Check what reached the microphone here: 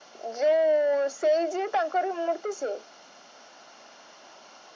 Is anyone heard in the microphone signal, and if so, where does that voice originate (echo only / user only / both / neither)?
echo only